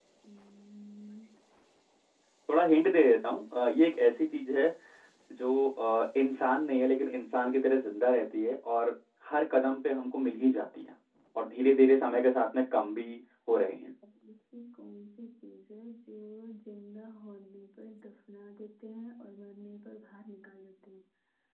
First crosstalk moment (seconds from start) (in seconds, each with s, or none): none